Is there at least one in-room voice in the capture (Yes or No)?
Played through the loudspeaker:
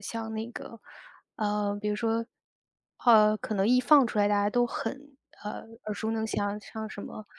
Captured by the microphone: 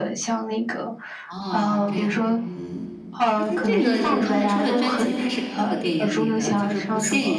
Yes